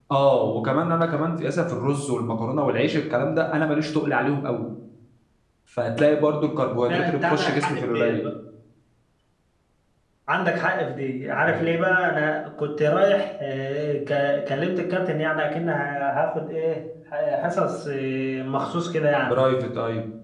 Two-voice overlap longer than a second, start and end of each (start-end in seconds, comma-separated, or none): 6.9-8.2